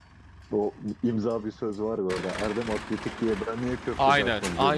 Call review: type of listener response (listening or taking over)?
taking over